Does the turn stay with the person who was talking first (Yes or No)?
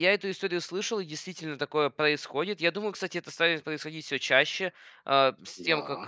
Yes